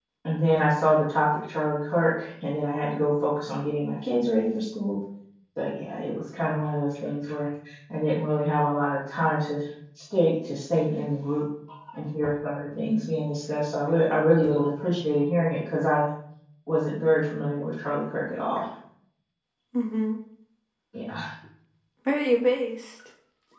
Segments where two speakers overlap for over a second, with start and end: none

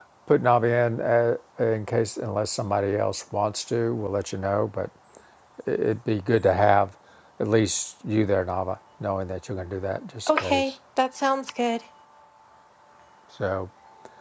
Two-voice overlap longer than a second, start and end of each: none

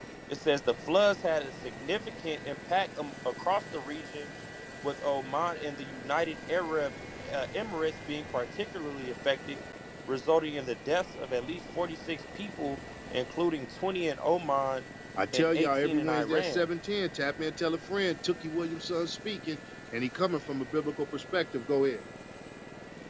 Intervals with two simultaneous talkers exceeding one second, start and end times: 15.3-16.6

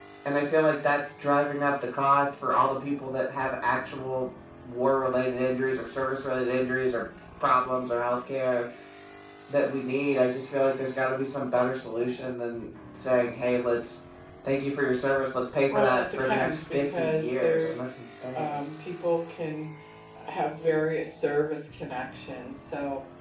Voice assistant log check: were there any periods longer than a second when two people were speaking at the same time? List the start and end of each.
15.7-17.9

